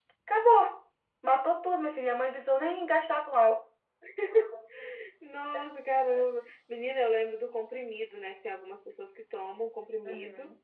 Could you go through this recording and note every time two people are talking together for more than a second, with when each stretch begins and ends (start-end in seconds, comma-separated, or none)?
none